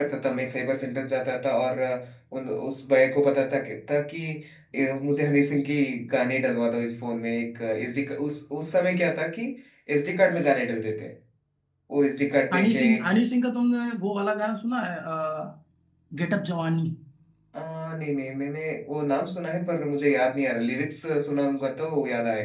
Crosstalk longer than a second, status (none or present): none